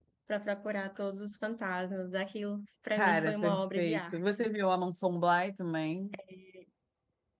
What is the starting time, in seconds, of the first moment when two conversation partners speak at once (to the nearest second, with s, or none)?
3 s